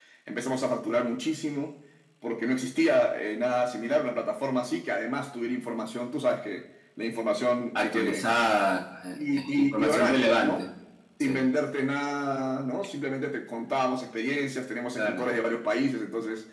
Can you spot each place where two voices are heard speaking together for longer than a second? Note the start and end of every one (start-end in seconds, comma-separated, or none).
9.2-10.6